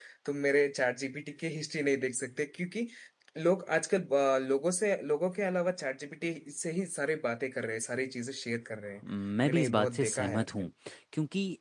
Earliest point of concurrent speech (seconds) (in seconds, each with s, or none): 9.4 s